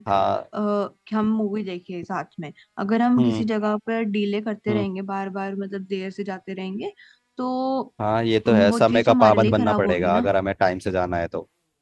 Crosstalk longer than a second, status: present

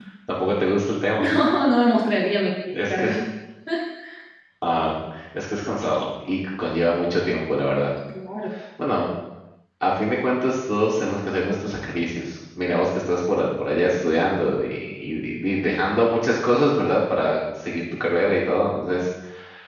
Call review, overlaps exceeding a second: none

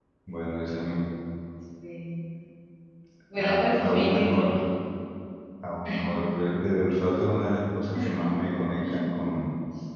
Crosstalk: present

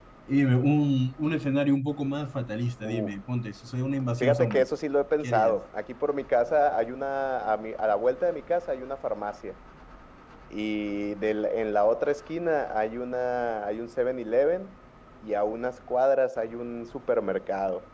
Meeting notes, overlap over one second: none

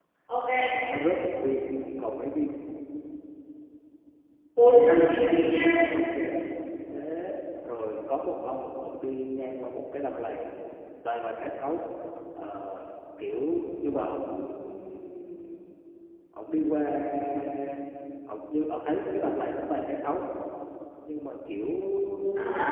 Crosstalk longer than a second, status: none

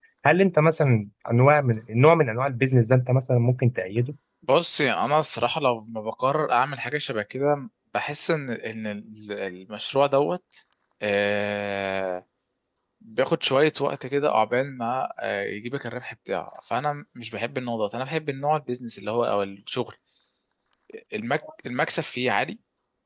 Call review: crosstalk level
none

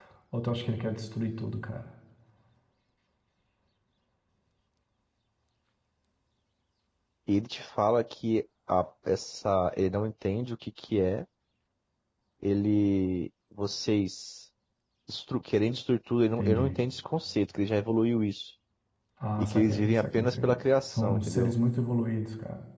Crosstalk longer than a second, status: present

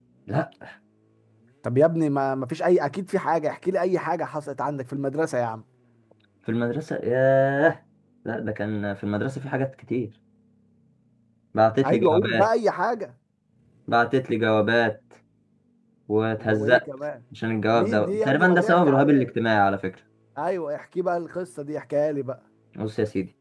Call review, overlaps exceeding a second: present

